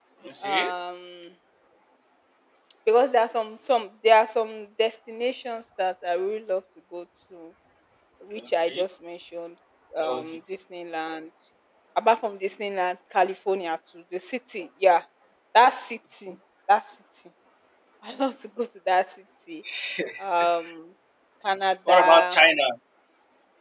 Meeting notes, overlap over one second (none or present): none